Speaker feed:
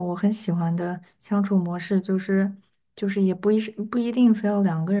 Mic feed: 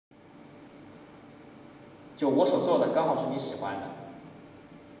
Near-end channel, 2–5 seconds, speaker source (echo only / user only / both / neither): user only